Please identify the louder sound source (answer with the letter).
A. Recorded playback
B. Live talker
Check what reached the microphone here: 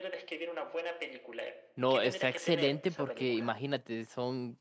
B